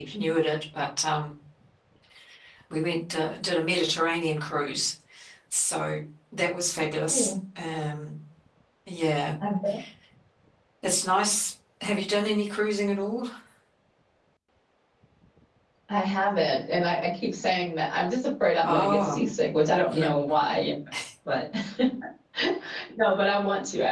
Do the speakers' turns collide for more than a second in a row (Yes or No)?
No